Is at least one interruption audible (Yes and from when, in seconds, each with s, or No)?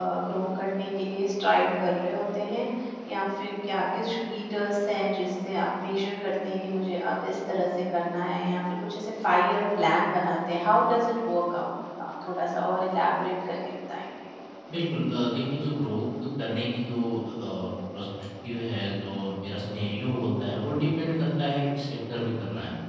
No